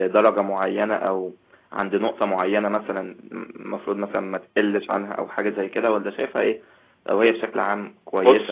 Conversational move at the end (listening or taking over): listening